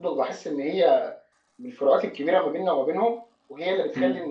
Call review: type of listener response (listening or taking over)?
listening